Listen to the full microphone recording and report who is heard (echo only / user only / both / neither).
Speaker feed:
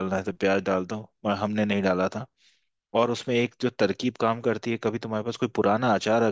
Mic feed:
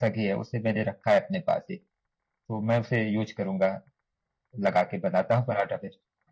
user only